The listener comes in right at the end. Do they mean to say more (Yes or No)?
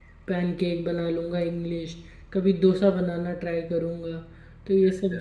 No